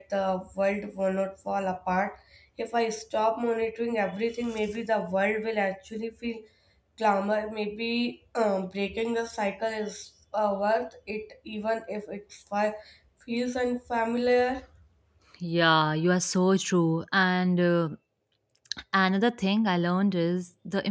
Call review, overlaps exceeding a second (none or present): none